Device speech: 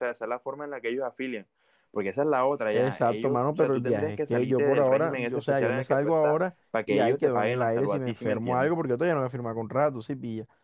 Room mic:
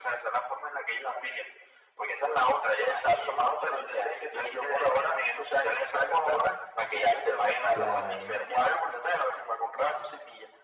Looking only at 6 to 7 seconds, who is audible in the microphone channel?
echo only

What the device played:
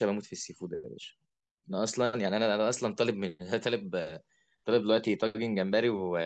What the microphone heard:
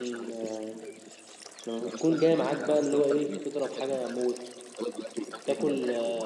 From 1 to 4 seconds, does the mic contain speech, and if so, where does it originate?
both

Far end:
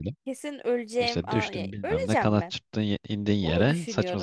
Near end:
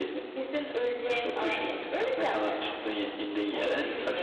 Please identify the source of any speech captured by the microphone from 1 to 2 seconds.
echo only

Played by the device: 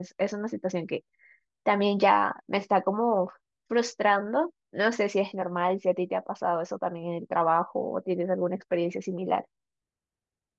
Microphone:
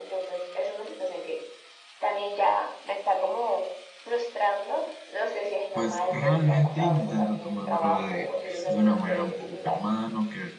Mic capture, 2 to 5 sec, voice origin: echo only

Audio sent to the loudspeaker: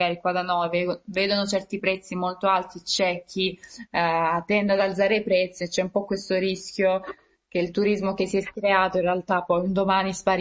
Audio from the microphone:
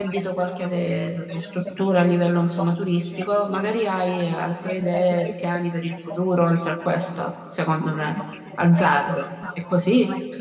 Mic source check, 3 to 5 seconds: both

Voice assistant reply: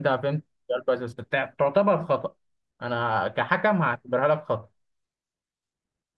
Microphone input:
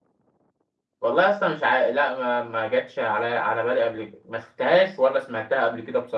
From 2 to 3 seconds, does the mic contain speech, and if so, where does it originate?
user only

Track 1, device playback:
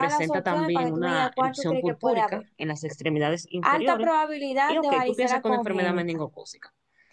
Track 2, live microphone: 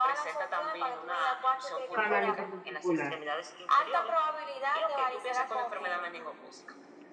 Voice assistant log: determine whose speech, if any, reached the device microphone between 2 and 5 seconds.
both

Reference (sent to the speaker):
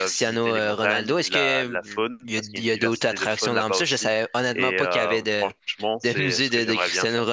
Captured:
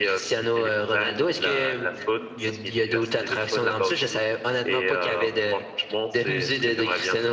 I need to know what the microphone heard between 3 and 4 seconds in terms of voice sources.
echo only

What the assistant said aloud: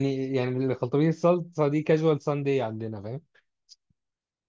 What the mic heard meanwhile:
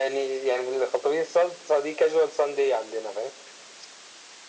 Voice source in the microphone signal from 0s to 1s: echo only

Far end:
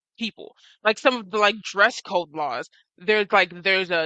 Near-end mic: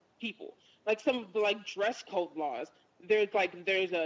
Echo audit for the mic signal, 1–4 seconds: echo only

